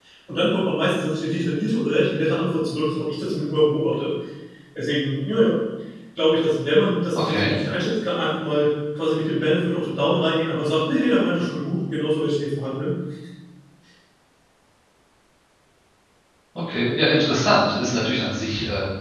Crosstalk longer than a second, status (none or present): none